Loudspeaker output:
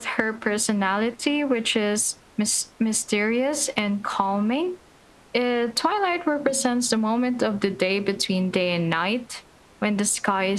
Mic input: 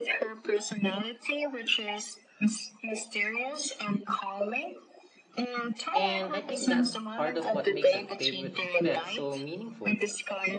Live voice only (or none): and I think that's part of what makes a favorite pet so meaningful.